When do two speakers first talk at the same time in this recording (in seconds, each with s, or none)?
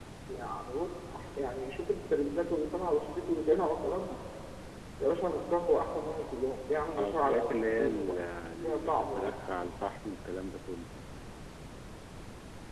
6.8 s